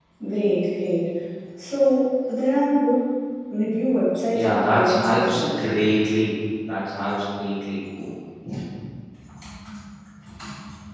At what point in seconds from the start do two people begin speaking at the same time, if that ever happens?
4 s

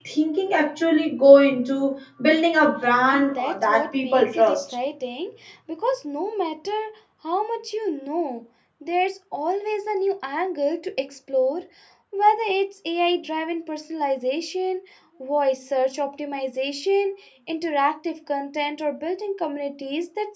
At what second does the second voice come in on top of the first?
3 s

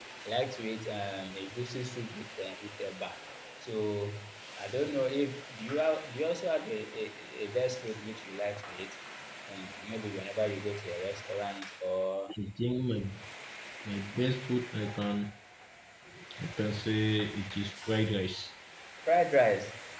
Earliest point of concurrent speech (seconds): none

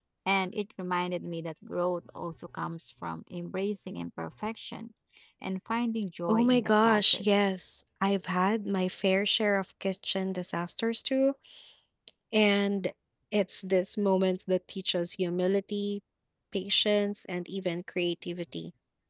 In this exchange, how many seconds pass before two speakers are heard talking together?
6 s

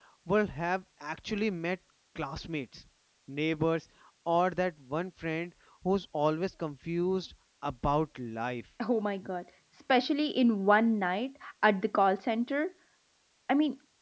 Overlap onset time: none

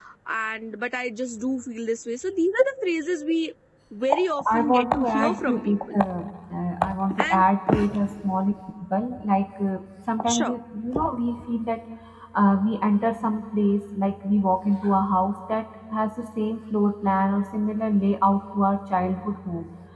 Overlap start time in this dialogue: 5 s

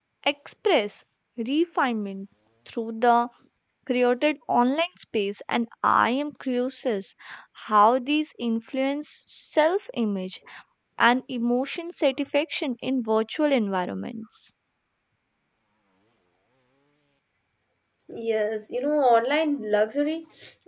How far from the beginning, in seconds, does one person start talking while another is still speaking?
none

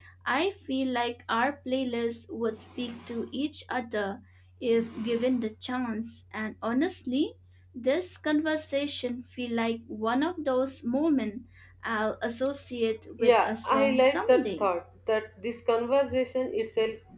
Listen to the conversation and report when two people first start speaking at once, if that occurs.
13 s

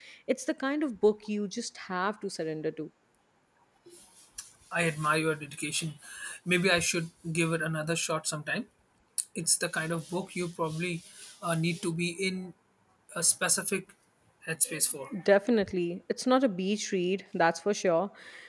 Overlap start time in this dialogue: none

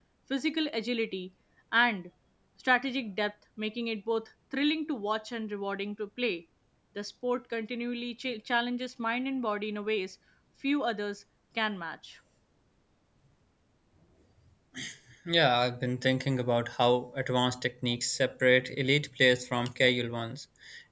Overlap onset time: none

